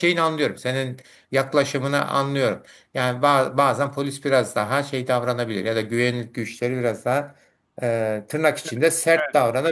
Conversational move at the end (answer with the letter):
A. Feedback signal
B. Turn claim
B